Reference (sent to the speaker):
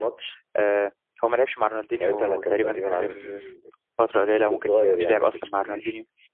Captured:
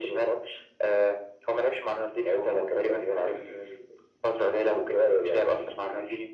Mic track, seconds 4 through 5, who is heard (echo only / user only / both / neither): echo only